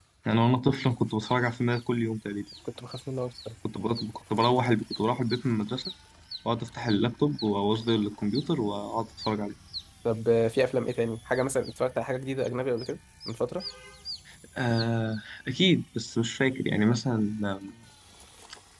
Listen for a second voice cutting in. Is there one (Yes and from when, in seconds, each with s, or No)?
No